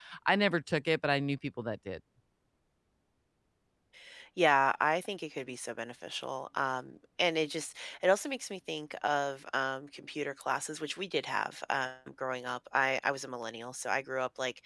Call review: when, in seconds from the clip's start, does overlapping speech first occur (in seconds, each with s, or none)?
none